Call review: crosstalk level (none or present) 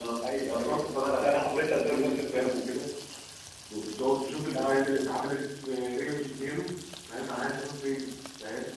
present